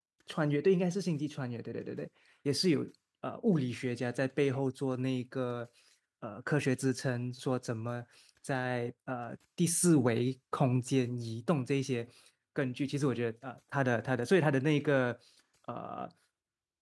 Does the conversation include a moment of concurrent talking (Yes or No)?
No